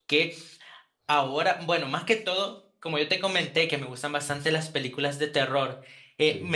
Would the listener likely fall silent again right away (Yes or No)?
Yes